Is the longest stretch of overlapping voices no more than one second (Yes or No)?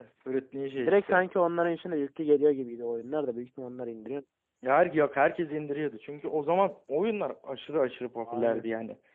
Yes